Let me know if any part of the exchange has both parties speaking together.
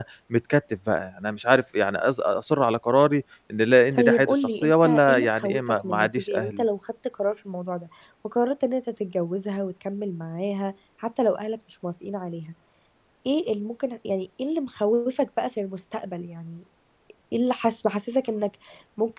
Yes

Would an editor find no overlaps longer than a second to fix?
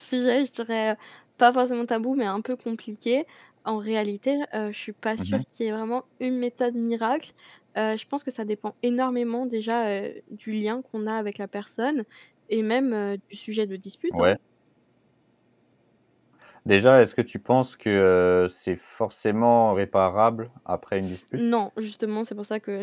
Yes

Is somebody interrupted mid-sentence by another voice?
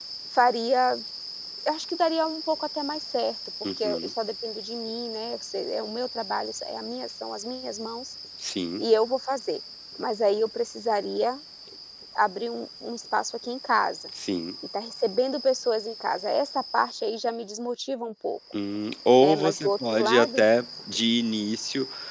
Yes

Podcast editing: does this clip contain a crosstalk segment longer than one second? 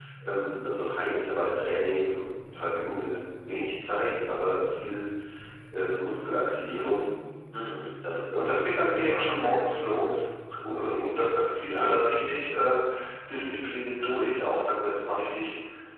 Yes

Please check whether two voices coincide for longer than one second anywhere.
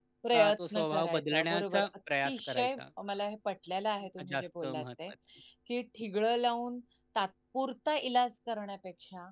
Yes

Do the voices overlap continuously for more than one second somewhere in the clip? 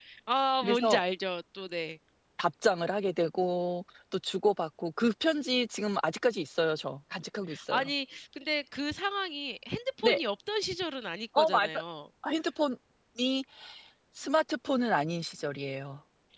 No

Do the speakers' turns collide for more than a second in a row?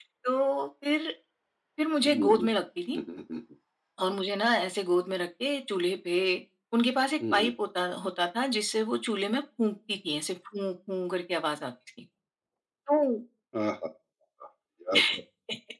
No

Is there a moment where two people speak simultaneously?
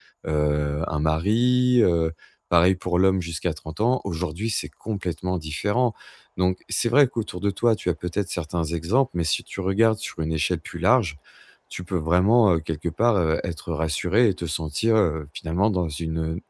No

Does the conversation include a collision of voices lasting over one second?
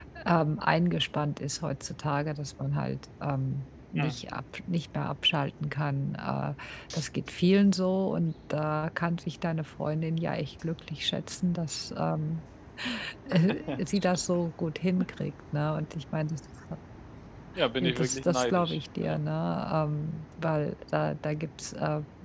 Yes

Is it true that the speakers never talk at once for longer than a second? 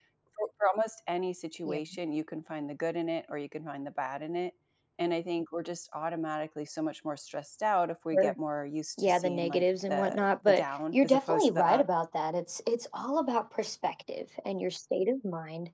No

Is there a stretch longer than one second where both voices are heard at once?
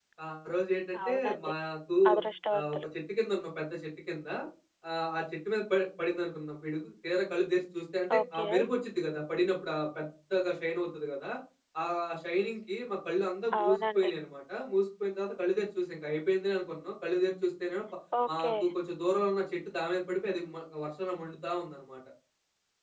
No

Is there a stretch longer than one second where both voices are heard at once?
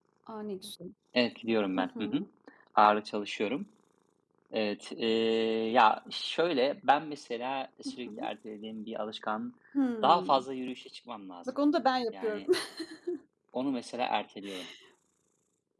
No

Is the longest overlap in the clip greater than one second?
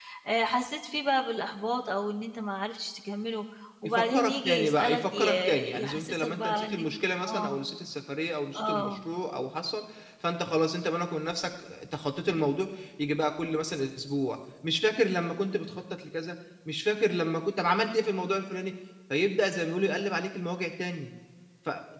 Yes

